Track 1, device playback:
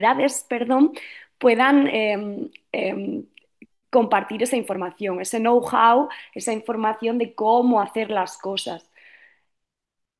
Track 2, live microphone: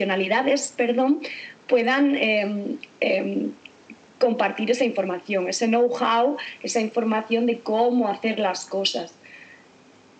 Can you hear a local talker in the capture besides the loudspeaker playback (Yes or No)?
No